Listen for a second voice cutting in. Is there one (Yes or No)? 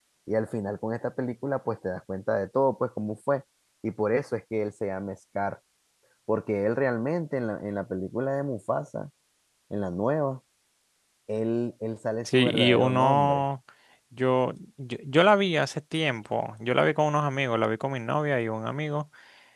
Yes